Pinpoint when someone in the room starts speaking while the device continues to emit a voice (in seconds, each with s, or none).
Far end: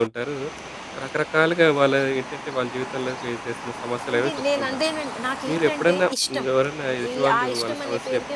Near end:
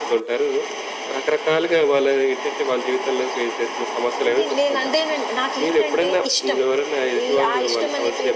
none